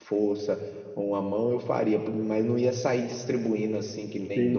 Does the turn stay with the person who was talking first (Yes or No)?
No